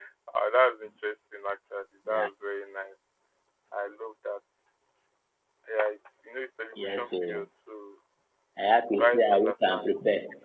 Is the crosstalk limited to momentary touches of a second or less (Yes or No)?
No